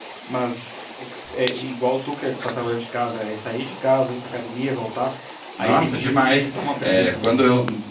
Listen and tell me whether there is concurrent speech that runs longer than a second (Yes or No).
Yes